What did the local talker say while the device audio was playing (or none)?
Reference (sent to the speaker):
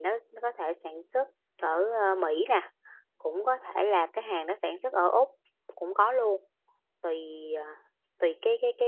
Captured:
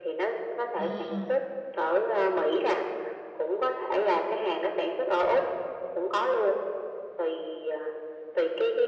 à